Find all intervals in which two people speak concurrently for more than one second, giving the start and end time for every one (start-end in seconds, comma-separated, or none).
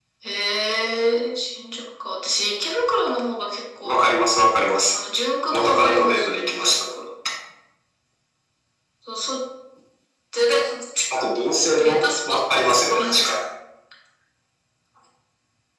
5.5-6.7, 11.8-13.3